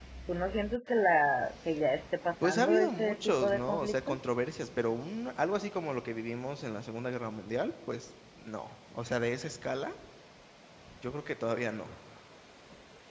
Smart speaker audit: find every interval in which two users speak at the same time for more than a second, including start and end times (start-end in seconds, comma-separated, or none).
2.4-4.2